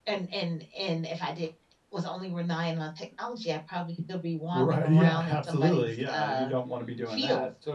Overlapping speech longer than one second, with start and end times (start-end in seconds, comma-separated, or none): 4.5-6.5